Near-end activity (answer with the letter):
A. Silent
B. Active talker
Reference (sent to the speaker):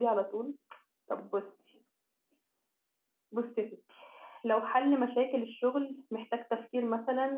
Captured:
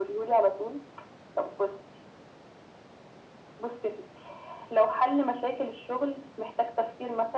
A